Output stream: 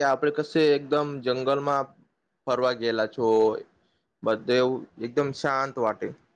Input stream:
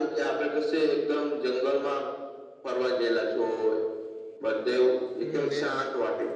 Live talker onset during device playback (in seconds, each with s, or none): 5.2 s